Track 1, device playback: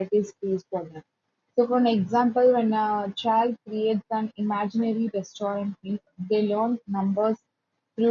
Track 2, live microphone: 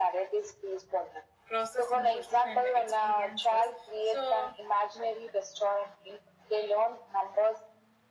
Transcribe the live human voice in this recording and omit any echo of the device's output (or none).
process emotional and experiences. So